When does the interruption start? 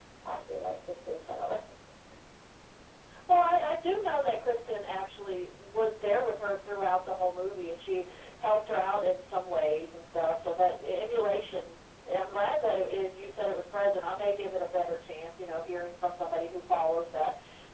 none

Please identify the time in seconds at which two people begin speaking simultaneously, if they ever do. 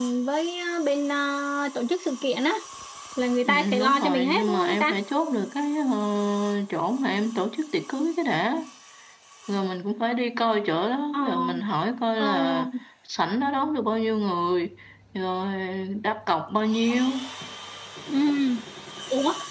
3.5 s

